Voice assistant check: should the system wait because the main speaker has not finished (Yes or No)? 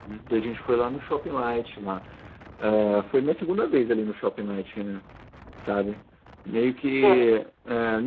Yes